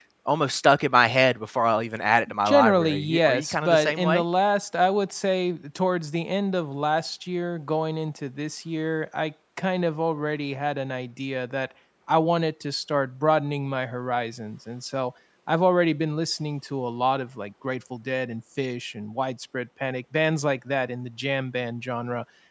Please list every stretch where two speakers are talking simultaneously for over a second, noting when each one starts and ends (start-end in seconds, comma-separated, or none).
2.5-4.2